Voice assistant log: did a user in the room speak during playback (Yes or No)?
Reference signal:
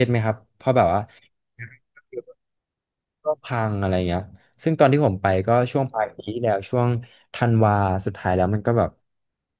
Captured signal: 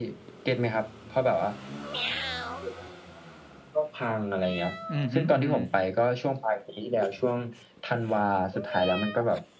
Yes